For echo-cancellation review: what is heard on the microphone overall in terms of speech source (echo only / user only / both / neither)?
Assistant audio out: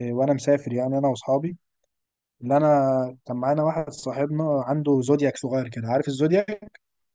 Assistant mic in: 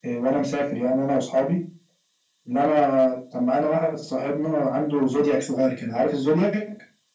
echo only